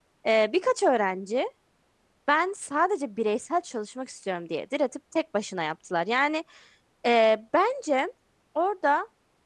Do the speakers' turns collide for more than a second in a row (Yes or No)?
No